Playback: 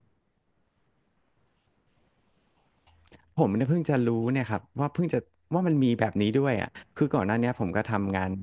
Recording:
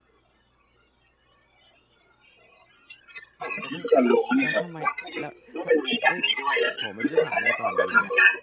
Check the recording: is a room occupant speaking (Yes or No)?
Yes